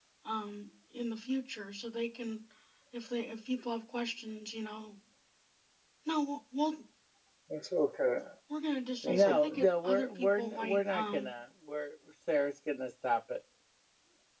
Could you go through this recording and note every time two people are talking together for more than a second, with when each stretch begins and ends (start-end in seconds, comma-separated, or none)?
9.0-11.3